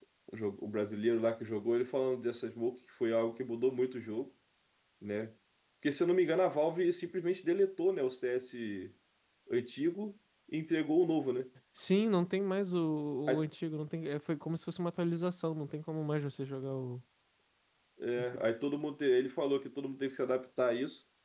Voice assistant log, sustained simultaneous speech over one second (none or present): none